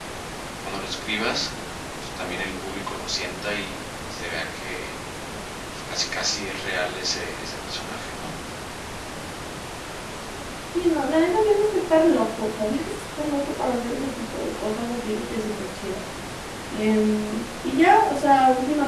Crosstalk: none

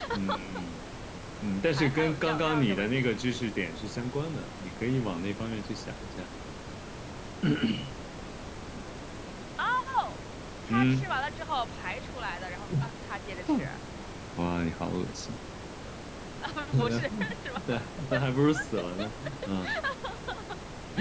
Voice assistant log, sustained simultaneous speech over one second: present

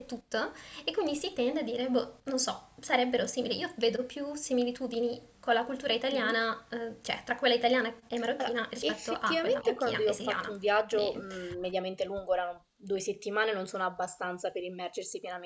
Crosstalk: present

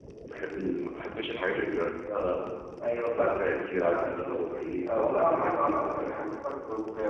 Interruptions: present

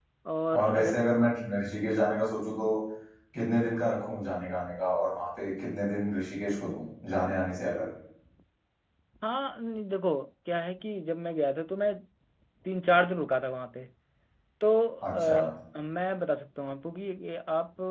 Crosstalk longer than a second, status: none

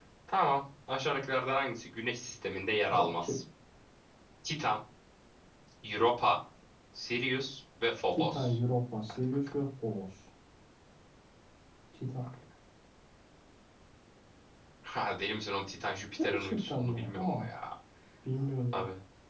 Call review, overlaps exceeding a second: present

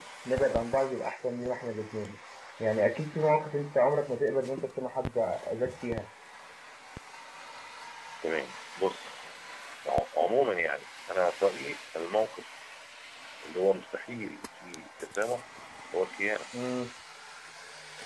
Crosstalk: none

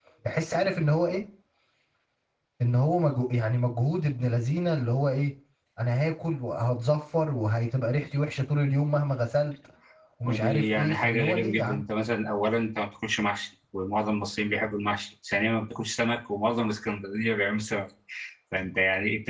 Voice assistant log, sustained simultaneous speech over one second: present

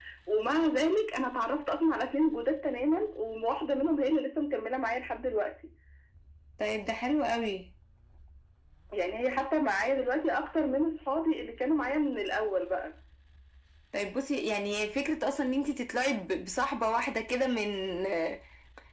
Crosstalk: none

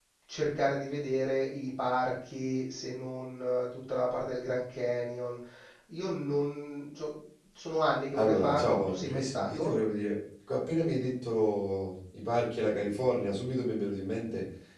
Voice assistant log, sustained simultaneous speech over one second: present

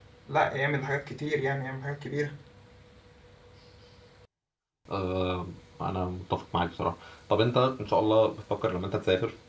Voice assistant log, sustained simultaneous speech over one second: none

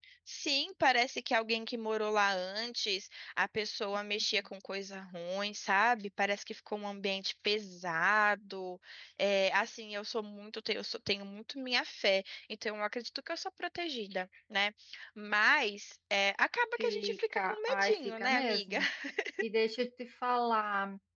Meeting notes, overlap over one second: present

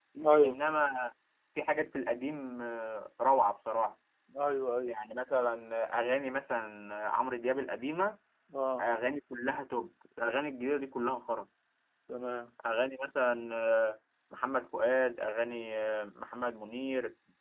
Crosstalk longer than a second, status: none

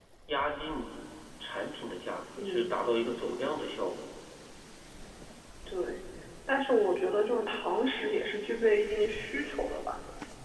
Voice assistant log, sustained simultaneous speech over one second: none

